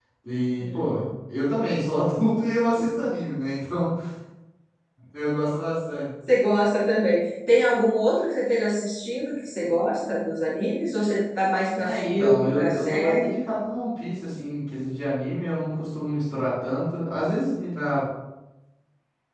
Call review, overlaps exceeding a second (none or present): present